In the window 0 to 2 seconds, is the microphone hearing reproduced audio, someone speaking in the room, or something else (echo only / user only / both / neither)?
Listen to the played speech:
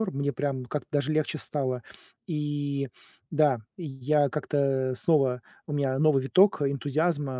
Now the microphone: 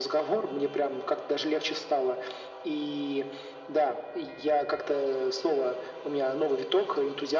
echo only